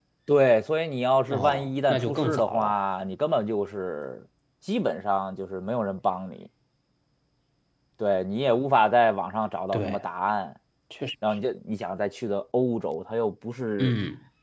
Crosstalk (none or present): present